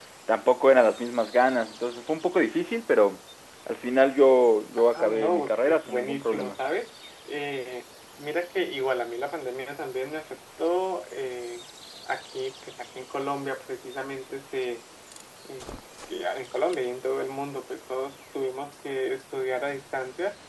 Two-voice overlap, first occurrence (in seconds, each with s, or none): 4.8 s